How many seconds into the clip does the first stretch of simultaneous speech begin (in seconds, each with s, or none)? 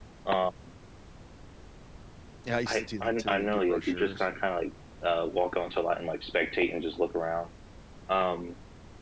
2.7 s